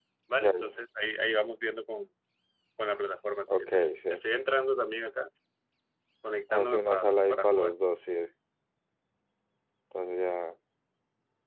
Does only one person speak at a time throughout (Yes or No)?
No